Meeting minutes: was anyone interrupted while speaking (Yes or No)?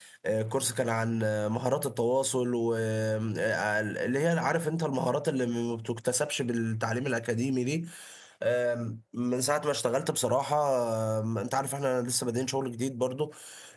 No